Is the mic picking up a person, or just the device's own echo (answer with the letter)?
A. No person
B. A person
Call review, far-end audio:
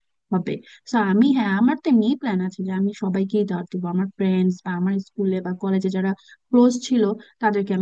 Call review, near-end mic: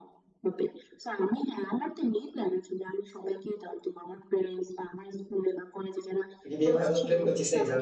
B